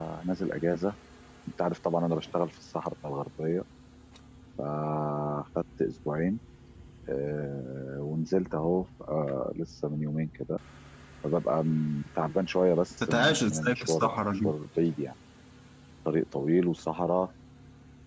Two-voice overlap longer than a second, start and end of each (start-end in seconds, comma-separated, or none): 13.0-14.5